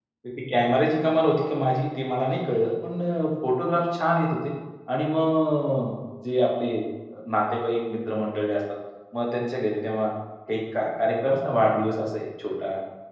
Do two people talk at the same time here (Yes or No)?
No